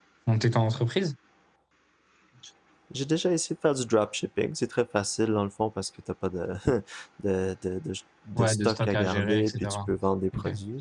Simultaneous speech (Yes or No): Yes